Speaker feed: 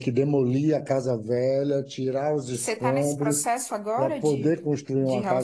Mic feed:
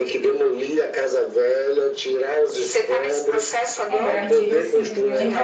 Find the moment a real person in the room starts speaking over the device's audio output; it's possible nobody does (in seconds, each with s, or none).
3.9 s